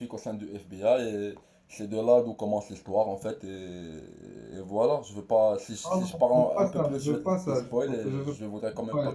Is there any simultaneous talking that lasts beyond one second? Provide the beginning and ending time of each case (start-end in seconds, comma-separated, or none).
5.8-8.3